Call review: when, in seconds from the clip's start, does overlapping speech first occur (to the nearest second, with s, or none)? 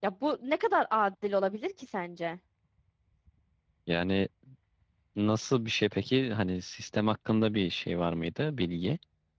none